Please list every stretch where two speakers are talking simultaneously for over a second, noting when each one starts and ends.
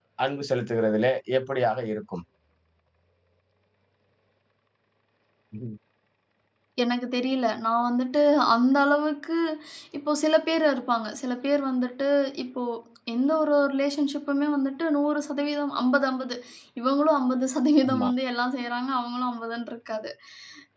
none

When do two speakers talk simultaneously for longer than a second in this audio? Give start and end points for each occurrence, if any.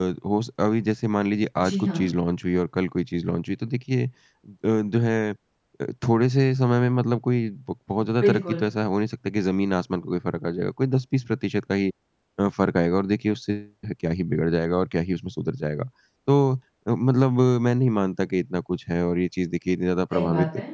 none

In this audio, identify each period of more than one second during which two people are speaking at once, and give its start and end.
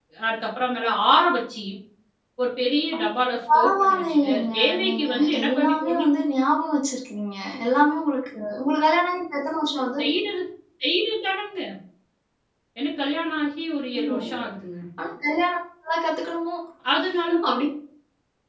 3.5-6.1

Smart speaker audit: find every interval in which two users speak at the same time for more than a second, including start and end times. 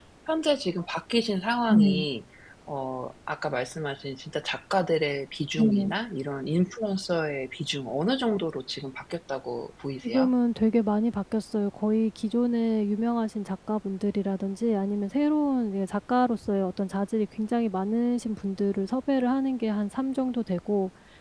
none

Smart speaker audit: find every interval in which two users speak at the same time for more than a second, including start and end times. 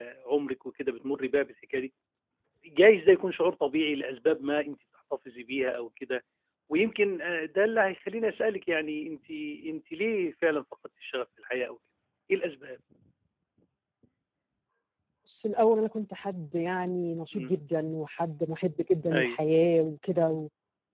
none

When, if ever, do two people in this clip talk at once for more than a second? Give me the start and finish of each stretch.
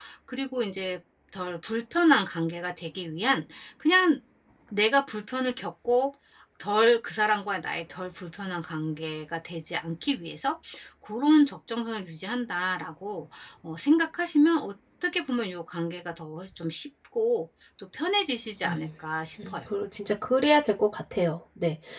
none

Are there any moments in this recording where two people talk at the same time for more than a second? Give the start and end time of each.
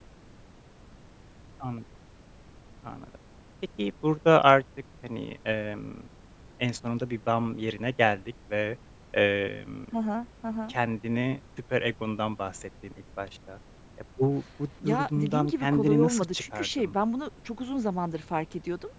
14.8-16.9

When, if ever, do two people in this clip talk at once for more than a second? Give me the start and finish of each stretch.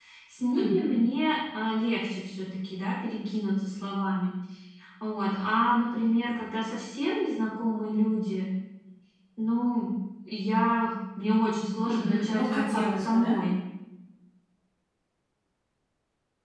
11.9-13.4

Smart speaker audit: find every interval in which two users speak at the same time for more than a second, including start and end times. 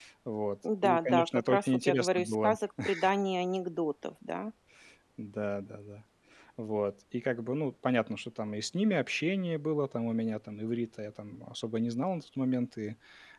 0.8-2.5

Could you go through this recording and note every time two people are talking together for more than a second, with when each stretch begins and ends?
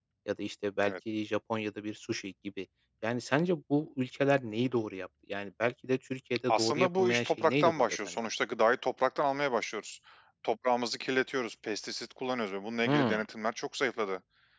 6.5-8.2

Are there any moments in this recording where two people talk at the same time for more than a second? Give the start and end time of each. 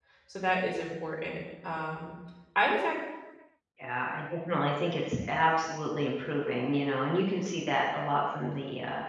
none

